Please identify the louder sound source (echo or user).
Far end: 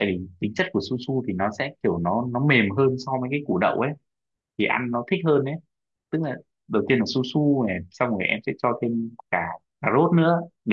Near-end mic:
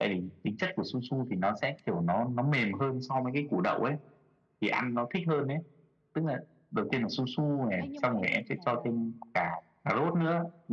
echo